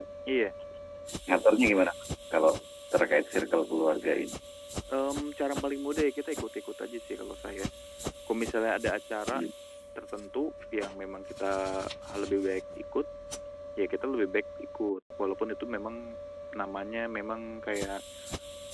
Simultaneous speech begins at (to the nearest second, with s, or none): none